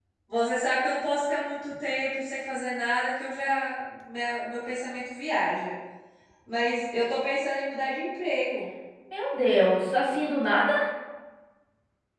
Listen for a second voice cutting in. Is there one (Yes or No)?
No